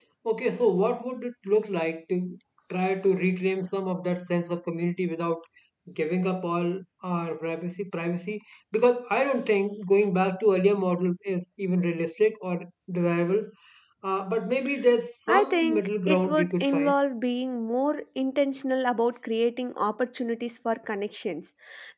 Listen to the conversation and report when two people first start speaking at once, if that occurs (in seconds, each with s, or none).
15.3 s